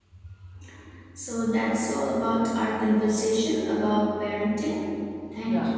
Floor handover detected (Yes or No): Yes